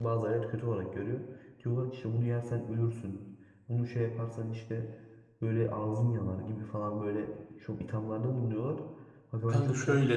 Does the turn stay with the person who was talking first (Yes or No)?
Yes